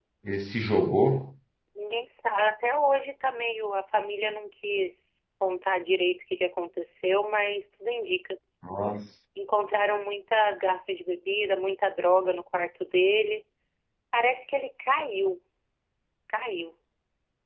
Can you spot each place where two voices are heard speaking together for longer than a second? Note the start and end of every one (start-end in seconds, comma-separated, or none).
none